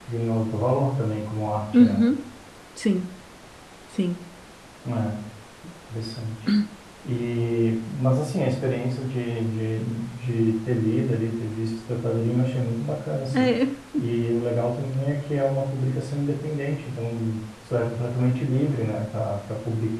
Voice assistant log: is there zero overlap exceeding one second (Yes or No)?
Yes